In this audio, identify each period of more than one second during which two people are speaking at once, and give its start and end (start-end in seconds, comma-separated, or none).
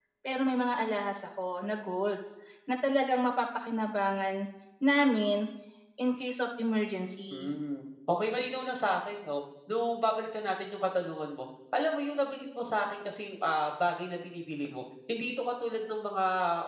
none